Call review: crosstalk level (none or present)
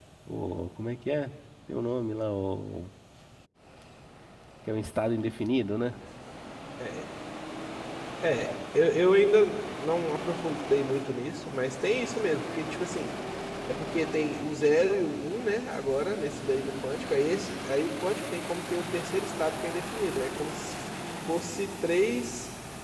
none